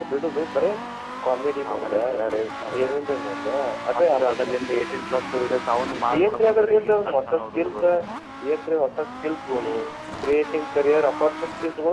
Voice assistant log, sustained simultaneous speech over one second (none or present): present